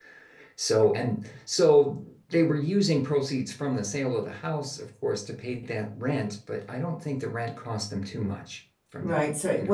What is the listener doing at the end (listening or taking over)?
taking over